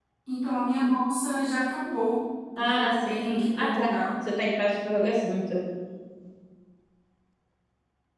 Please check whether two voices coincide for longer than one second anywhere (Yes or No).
Yes